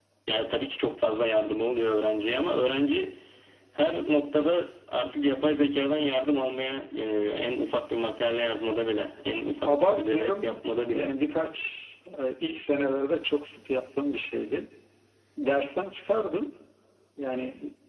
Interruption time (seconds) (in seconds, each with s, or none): 9.7 s